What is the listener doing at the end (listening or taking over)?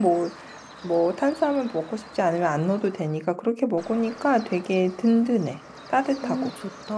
taking over